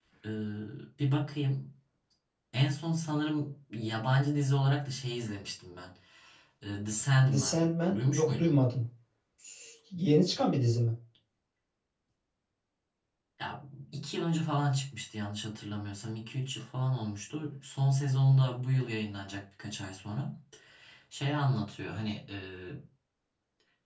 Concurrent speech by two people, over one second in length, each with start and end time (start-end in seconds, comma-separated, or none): 7.3-8.5